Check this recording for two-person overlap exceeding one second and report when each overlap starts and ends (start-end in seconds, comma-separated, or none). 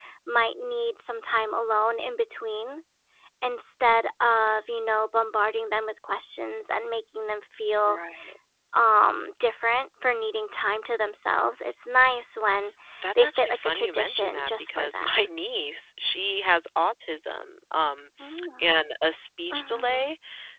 13.2-15.3